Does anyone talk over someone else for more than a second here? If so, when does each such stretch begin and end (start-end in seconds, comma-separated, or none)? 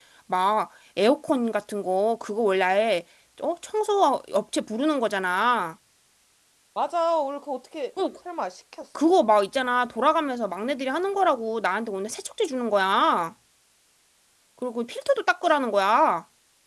none